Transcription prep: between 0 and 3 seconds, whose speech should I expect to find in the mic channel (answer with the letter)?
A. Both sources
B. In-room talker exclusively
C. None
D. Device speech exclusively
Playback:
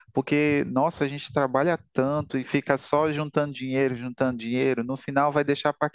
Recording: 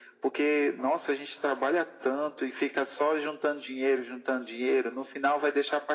D